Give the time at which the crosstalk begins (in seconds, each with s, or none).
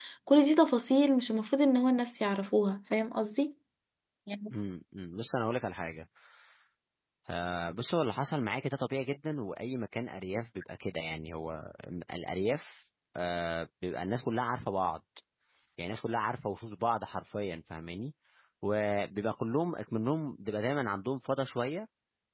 none